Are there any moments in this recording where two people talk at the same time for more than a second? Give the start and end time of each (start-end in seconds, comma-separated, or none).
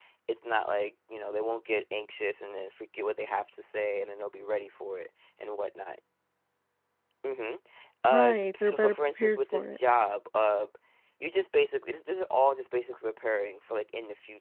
8.1-9.8